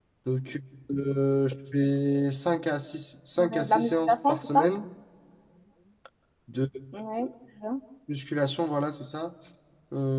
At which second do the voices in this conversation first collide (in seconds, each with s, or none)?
3.4 s